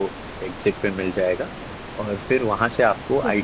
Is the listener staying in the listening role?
Yes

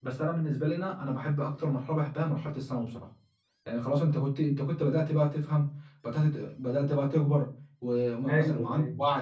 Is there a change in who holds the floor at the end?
No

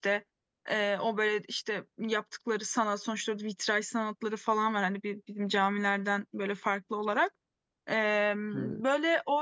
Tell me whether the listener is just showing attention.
Yes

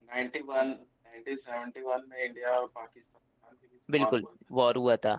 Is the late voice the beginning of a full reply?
Yes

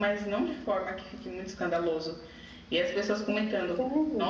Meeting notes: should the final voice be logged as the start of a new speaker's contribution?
No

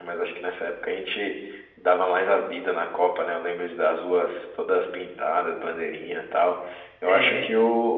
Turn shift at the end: No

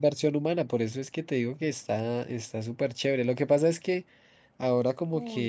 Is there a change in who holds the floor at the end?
No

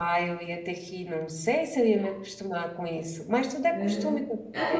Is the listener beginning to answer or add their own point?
Yes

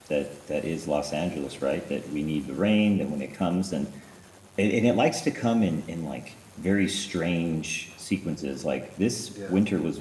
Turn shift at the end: No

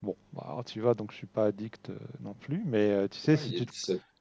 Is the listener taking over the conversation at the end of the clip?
Yes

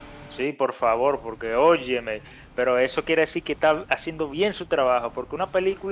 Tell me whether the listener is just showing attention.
Yes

